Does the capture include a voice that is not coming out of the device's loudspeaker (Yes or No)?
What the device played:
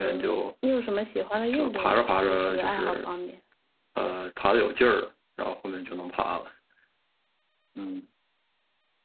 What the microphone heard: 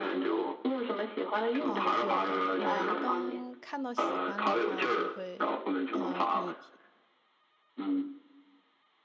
Yes